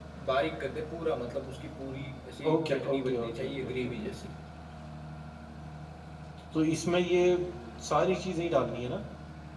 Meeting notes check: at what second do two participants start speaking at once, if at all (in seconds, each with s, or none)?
2.4 s